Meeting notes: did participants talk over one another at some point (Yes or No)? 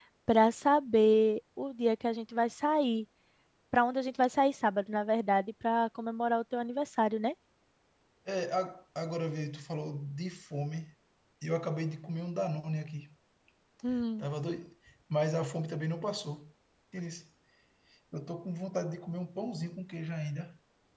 No